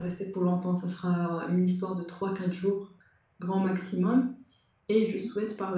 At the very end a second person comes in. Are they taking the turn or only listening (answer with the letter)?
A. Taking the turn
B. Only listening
B